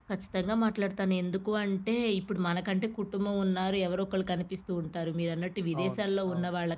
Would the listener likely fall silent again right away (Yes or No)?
Yes